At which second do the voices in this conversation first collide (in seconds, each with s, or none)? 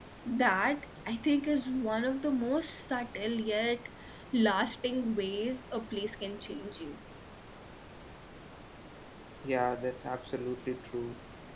none